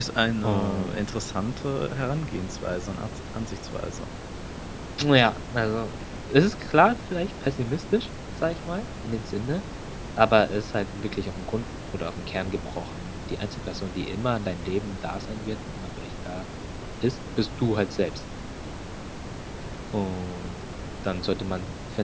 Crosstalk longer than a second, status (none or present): none